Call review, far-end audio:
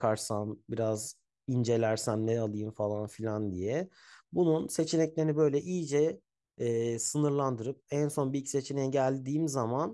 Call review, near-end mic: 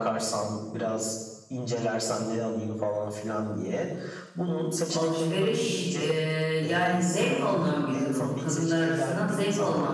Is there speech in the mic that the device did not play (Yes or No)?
Yes